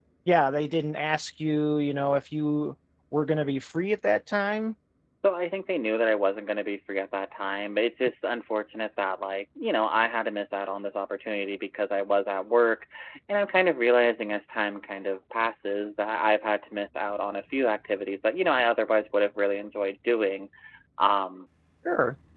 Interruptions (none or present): none